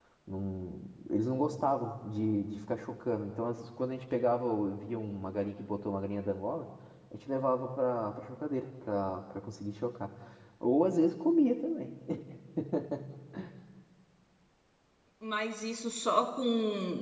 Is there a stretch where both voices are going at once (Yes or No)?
No